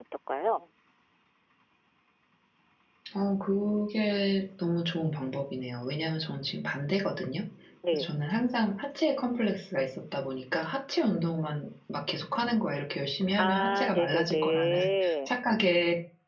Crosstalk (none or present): present